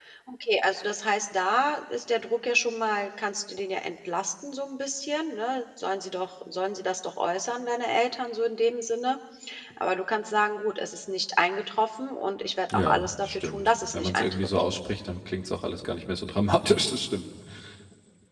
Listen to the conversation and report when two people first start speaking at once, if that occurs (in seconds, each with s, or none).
12.7 s